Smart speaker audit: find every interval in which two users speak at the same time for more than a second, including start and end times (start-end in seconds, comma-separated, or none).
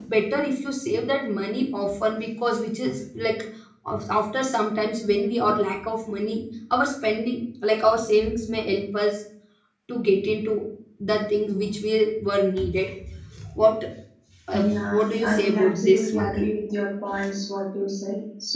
14.5-16.3